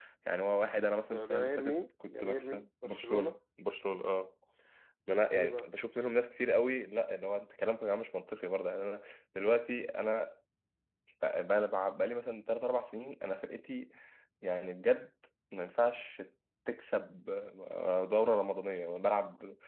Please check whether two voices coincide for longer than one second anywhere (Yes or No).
Yes